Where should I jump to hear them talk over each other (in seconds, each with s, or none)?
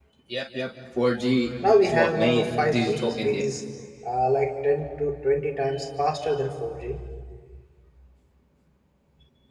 1.8 s